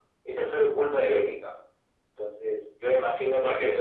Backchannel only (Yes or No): Yes